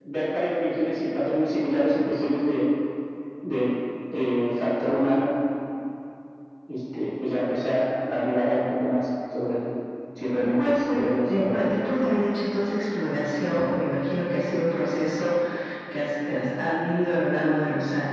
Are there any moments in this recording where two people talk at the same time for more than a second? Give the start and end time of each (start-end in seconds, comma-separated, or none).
10.4-11.7